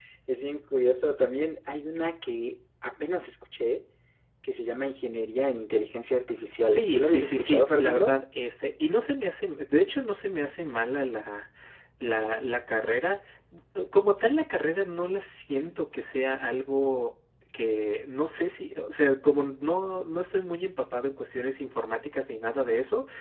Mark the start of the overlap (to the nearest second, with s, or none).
7 s